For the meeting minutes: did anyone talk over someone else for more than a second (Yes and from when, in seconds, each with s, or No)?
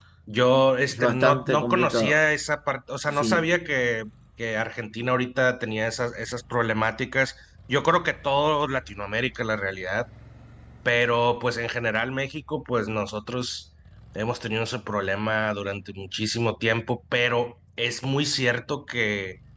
Yes, from 0.9 s